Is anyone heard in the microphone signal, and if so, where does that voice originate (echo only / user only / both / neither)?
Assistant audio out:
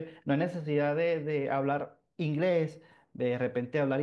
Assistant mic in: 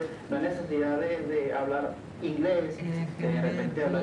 both